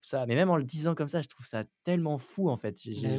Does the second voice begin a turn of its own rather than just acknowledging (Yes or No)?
No